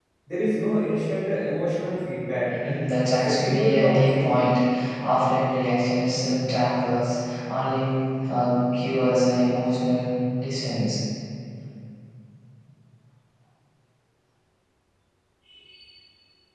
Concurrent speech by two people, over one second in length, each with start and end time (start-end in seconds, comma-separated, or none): 3.2-4.5